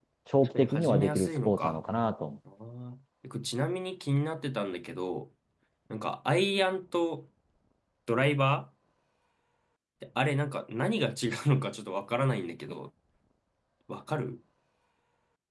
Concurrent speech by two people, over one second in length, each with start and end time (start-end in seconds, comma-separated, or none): 0.5-1.8